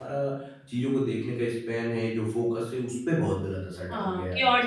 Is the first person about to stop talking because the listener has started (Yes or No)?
Yes